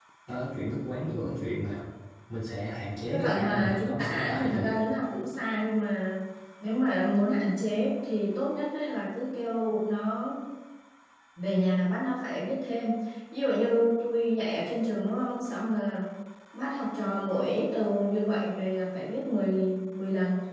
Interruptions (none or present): present